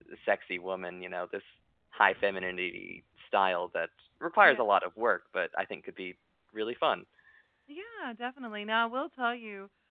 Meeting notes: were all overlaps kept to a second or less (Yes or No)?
Yes